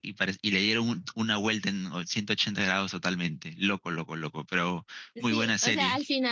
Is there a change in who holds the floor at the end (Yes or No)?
Yes